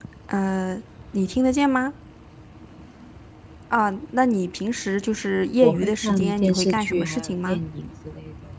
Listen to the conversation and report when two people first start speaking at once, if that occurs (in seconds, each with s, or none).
5.6 s